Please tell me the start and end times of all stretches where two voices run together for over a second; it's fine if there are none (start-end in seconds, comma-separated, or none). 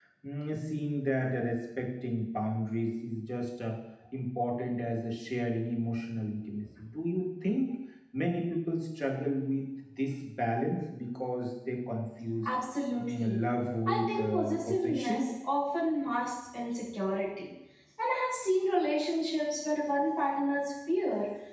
13.9-15.3